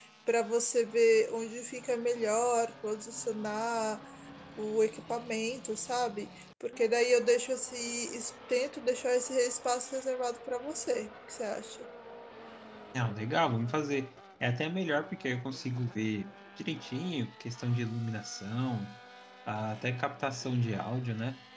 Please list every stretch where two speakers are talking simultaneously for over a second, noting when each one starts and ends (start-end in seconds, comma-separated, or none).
none